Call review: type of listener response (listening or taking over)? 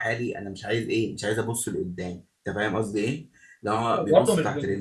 taking over